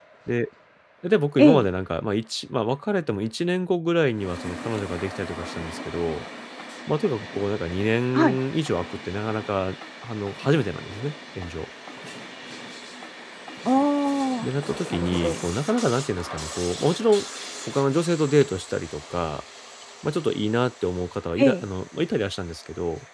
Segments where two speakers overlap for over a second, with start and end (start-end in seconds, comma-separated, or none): none